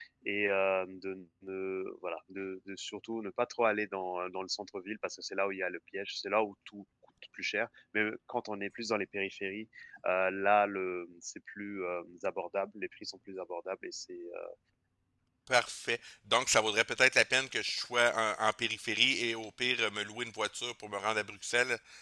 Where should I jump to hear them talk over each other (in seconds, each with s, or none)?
none